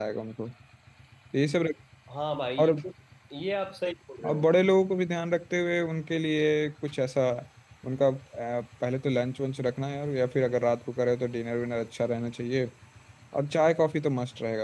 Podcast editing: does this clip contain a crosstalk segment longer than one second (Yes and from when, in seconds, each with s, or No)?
No